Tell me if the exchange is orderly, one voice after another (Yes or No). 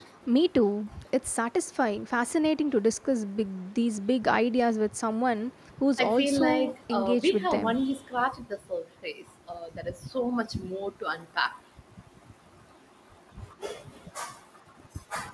No